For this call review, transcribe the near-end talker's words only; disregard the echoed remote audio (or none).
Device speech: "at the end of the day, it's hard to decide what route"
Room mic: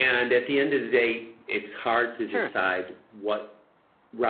Sure.